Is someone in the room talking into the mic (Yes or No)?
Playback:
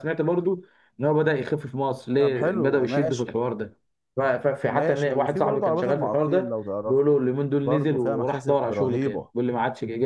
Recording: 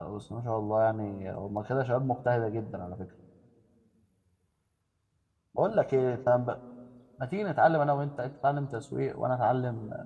Yes